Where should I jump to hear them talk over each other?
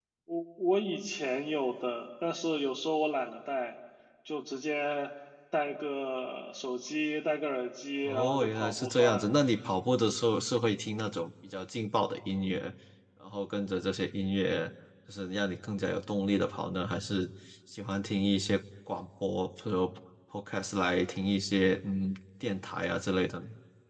8 s

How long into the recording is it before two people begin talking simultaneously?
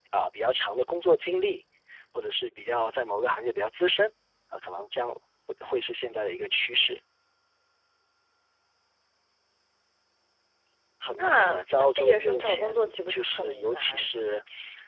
11 s

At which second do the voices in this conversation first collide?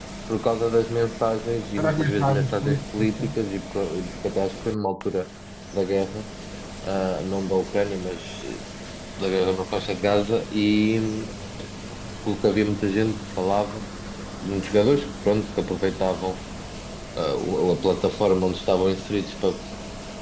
2 s

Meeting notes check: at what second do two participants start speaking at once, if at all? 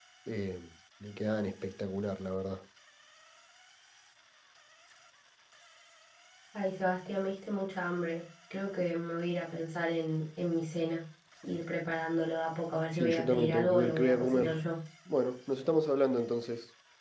13 s

